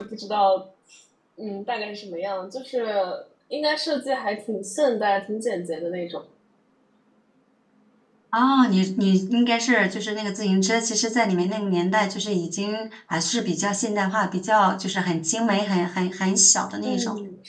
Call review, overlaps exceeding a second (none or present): none